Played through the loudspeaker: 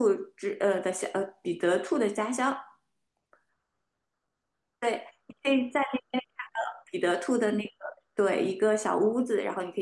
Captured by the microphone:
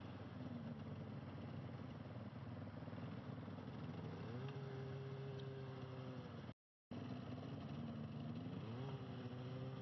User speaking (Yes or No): No